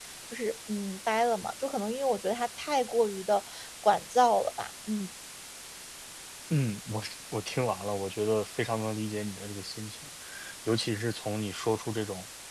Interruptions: none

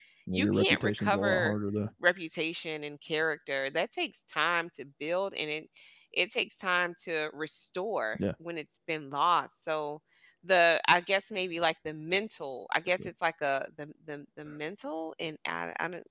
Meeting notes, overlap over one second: present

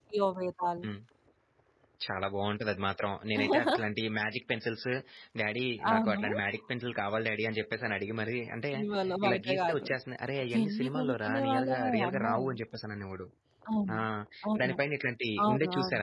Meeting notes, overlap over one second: present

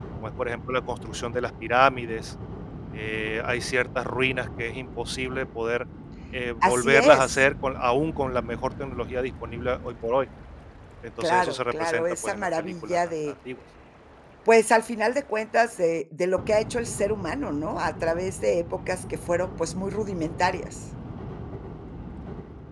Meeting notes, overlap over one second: present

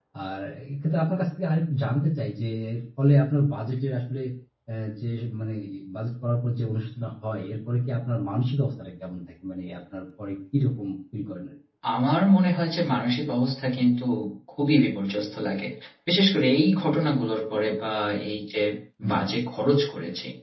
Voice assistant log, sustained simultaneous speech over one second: none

